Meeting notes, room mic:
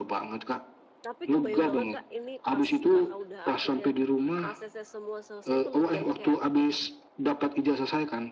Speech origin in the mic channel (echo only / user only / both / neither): both